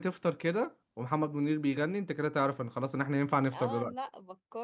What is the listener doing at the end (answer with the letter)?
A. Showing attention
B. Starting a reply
B